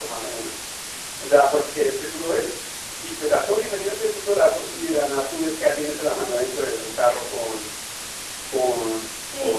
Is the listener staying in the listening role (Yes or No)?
No